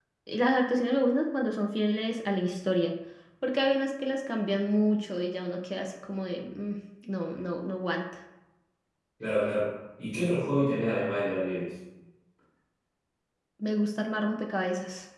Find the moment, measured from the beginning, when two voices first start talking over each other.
none

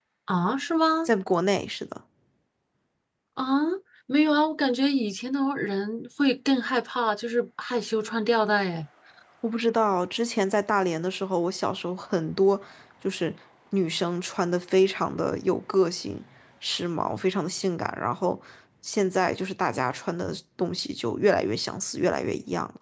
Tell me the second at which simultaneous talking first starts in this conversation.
none

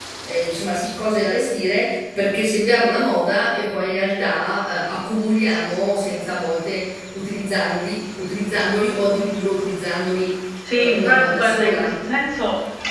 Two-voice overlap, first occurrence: 10.7 s

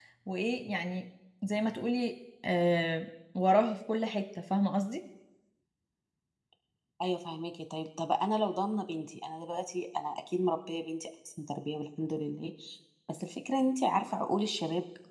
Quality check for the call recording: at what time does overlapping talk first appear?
none

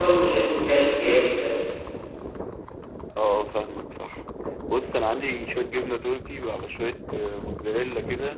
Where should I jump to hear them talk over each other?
none

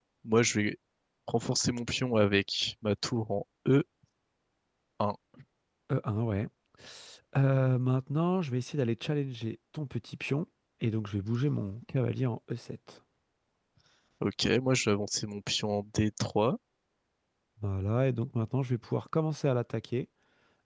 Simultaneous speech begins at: none

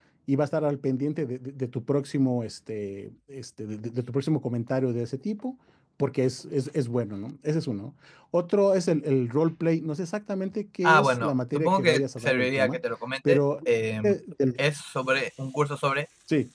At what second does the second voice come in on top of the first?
10.8 s

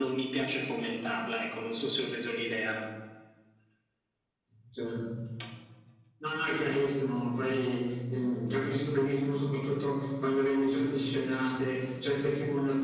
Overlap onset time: none

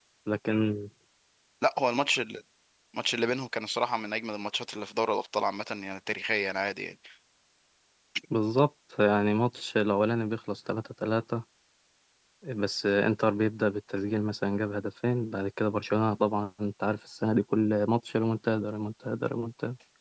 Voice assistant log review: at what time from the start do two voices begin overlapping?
none

